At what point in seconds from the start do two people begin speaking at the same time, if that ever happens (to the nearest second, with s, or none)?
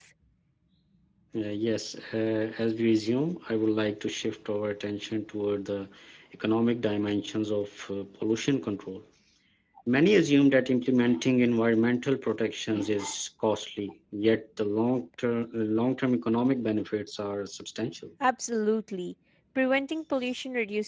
none